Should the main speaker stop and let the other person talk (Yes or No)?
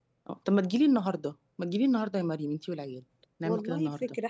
Yes